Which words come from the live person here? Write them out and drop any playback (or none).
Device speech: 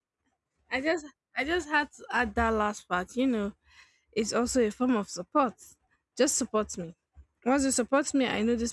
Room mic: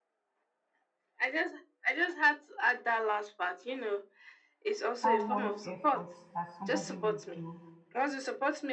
that one effort that somebody would do